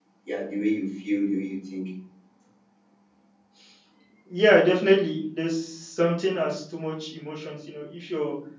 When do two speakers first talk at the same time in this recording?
none

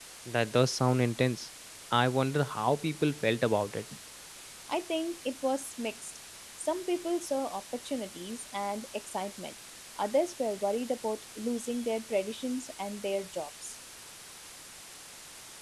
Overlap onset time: none

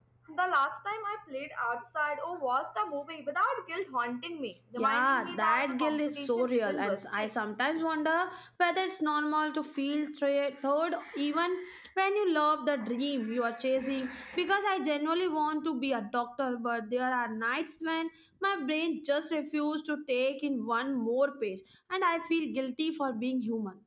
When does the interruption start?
5 s

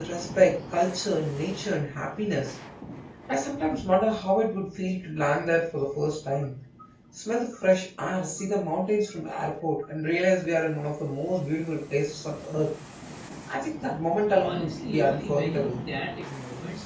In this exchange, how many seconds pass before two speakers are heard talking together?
14 s

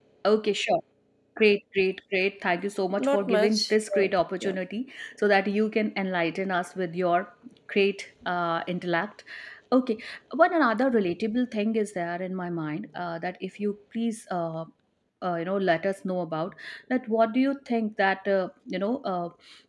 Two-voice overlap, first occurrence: 3 s

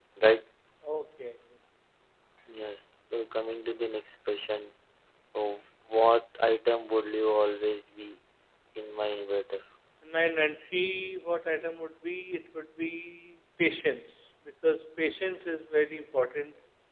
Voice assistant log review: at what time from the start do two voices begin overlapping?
none

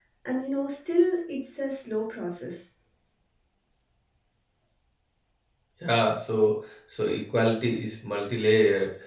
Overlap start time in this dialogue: none

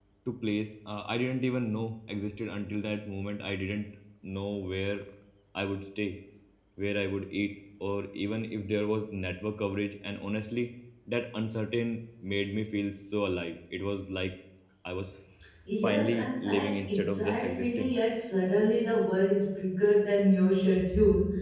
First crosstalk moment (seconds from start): 16 s

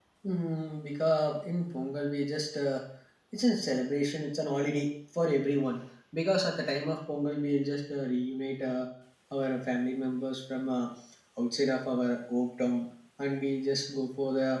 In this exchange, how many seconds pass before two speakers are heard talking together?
none

